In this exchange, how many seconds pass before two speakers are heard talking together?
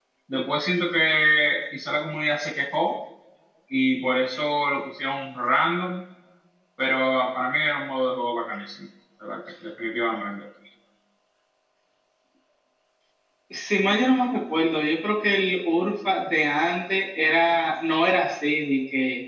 none

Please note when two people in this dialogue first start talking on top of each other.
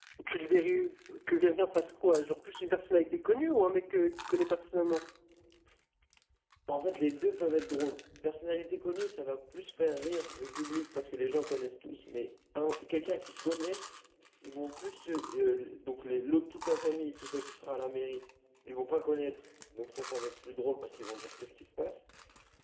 none

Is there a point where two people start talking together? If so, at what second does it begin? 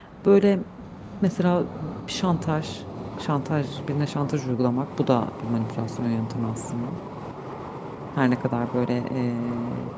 none

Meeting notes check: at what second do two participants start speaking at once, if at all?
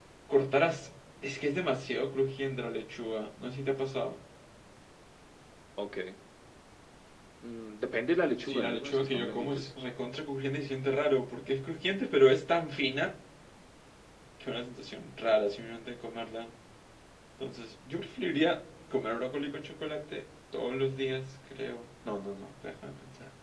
8.4 s

